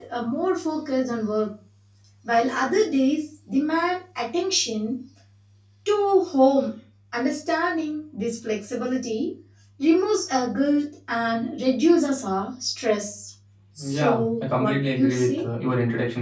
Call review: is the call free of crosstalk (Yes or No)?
No